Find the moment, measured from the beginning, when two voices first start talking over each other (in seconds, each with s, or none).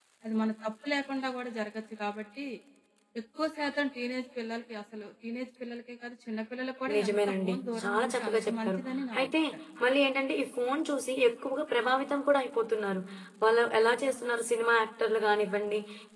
7.0 s